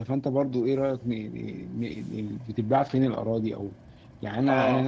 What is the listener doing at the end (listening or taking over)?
taking over